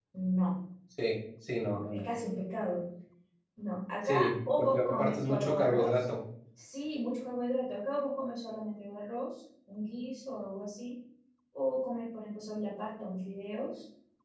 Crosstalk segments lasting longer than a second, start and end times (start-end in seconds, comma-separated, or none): 4.0-6.0